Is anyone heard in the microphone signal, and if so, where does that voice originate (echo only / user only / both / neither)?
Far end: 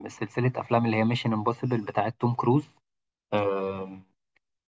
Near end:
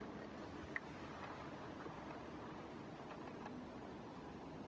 neither